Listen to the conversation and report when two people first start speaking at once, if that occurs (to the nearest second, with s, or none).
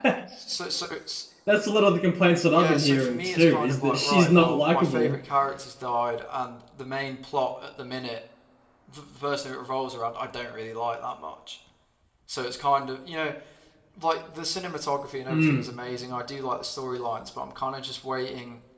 3 s